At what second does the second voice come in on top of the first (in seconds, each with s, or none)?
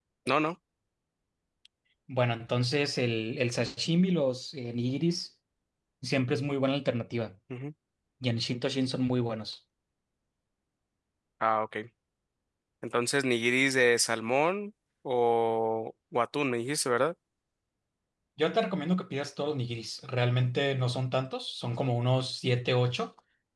none